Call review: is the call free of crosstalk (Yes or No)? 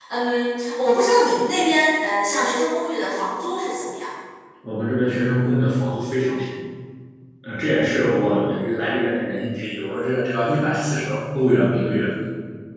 Yes